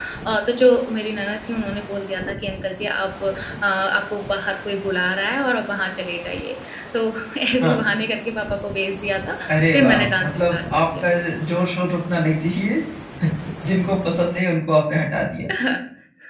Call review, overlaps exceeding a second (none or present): present